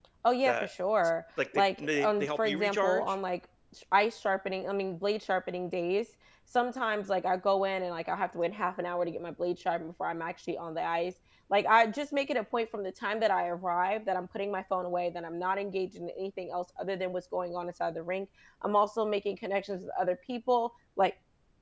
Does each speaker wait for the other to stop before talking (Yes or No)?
No